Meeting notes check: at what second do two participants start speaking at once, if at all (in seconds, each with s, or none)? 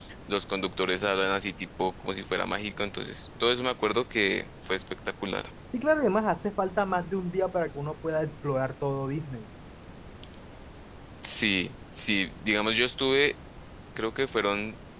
none